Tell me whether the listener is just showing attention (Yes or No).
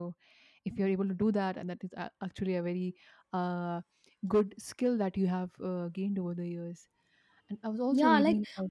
No